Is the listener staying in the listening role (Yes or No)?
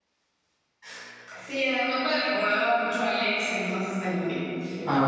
No